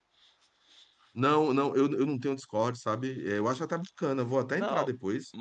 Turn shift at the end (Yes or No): Yes